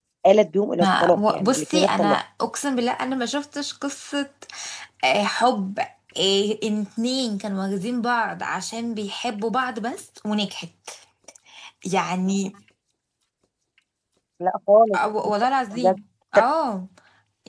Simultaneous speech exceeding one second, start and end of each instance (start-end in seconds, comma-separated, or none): 0.8-2.1